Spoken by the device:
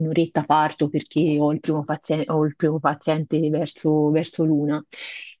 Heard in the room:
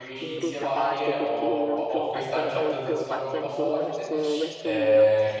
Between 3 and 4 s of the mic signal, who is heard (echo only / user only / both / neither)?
both